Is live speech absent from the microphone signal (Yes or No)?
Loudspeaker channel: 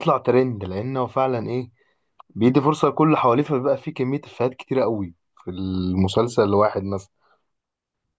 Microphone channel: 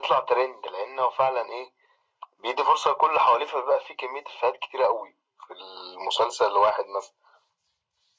Yes